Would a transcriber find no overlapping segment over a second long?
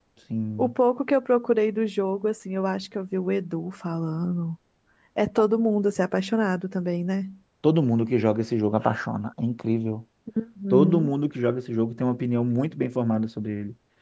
Yes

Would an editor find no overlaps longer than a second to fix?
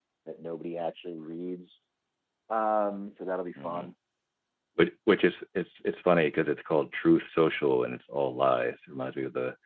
Yes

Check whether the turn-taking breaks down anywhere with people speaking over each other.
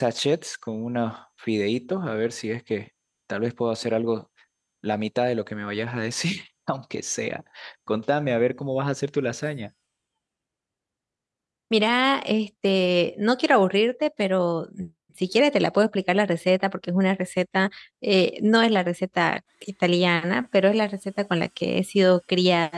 No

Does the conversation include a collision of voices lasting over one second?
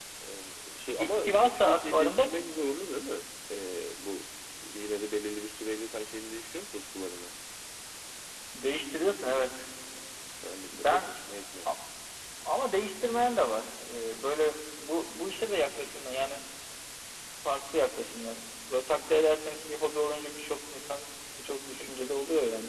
Yes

